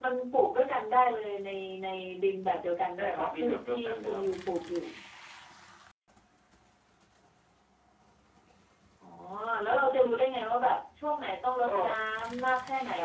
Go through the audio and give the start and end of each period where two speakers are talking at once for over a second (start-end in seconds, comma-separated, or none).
3.0-4.4